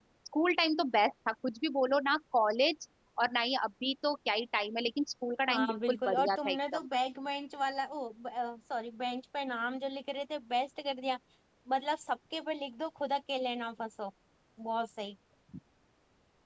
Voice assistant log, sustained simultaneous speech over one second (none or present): present